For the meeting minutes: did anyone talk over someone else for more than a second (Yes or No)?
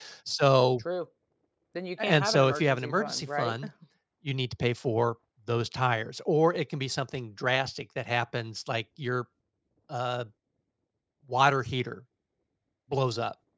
Yes